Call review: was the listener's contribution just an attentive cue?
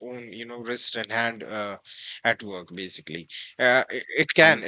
Yes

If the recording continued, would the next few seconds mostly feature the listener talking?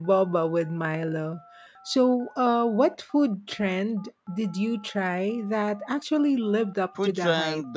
Yes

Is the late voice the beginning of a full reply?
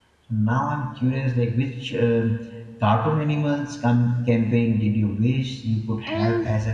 Yes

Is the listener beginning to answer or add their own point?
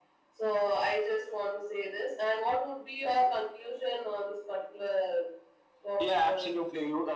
Yes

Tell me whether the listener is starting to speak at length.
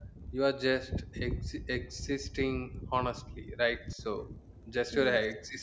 No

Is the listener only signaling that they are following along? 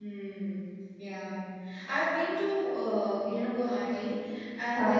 Yes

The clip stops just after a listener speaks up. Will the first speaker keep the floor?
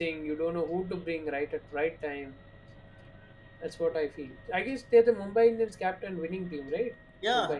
No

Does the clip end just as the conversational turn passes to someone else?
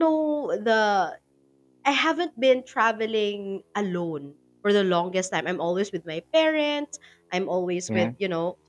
No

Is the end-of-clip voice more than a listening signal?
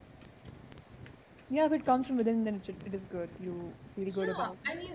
Yes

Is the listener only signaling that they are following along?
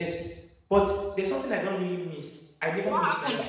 No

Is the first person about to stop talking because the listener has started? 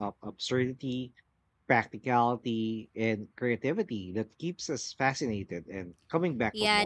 Yes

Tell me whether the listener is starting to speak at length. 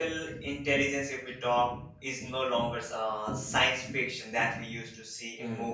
No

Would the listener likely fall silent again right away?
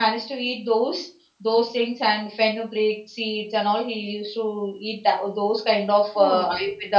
Yes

